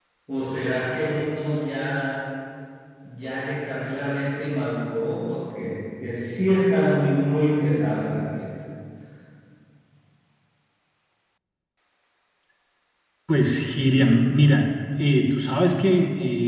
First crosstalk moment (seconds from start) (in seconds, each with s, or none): none